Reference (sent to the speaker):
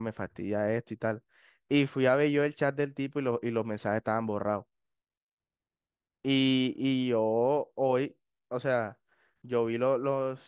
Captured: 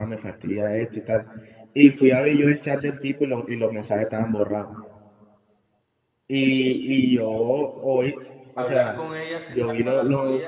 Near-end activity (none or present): present